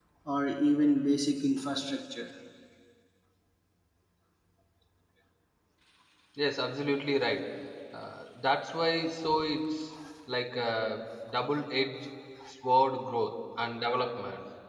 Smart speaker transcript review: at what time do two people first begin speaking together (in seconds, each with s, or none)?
none